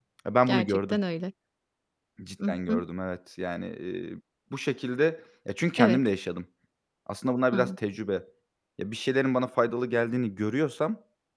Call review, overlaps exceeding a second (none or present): none